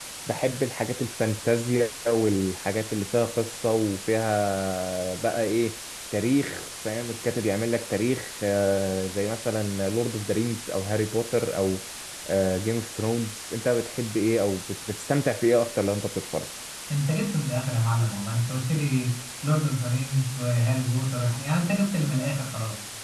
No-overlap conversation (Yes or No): Yes